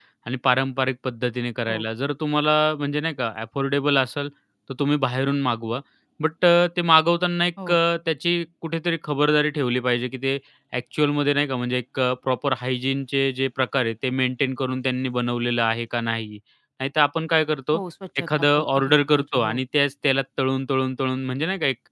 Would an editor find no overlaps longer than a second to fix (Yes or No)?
No